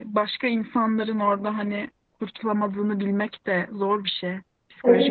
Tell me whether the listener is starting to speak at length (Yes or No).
Yes